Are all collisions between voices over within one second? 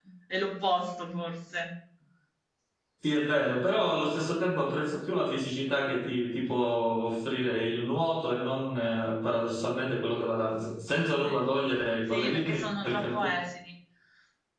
No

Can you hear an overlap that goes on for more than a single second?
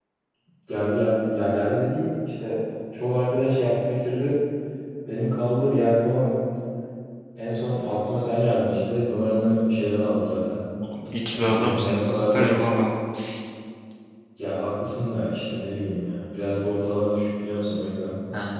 Yes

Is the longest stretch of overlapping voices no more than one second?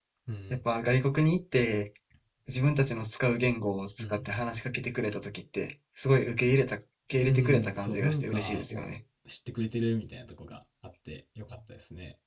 No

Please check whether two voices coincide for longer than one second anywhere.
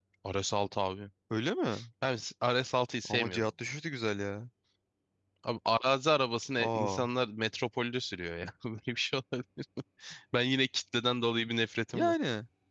No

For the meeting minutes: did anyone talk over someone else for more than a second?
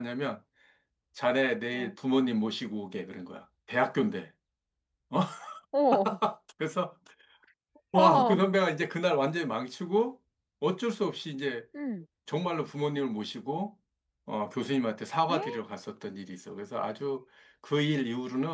No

